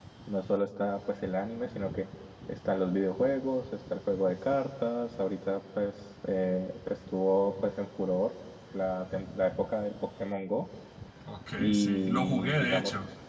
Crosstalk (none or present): present